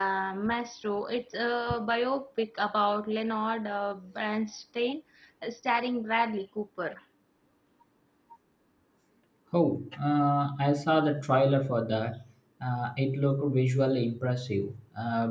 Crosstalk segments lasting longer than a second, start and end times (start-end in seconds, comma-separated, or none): none